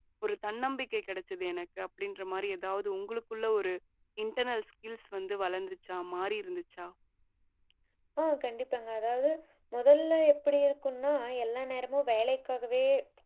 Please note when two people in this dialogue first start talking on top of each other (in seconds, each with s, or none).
none